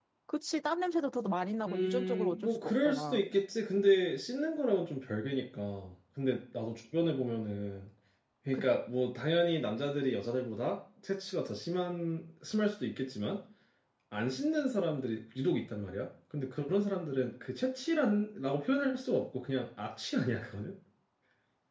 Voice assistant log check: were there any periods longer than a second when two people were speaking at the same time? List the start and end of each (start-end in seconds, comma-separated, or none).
1.7-3.2